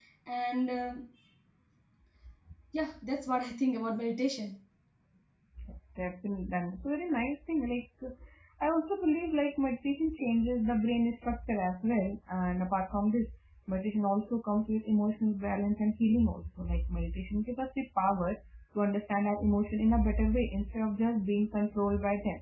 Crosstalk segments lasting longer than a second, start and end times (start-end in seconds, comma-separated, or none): none